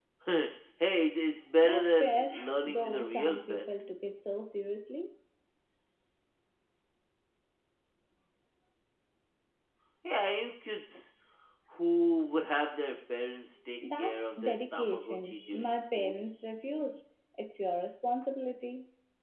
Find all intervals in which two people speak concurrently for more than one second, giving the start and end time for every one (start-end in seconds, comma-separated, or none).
1.6-3.7, 14.0-16.2